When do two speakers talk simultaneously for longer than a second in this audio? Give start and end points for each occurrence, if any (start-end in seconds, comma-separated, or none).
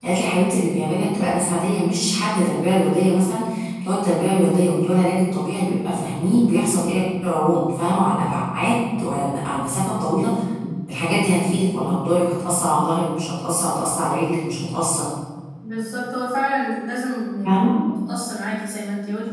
none